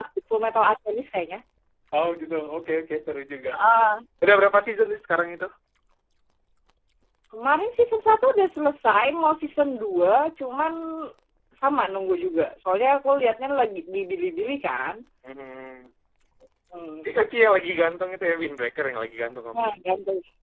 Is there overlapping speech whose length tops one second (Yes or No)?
No